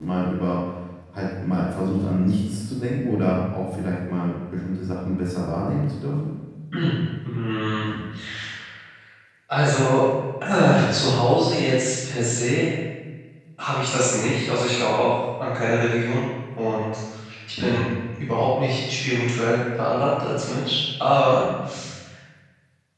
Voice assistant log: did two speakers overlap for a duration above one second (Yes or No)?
No